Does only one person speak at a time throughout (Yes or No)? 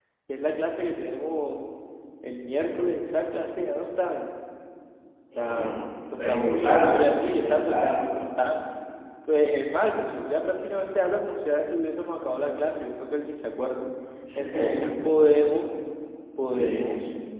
No